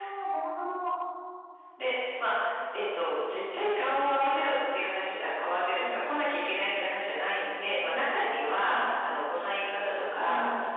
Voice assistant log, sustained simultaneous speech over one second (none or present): none